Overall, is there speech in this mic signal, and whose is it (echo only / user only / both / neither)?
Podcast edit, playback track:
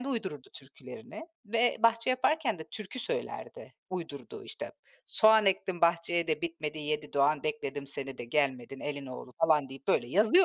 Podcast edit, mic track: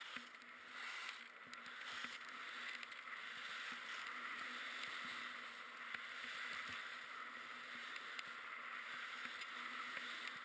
neither